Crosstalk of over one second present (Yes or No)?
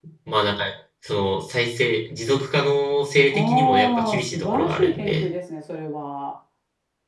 Yes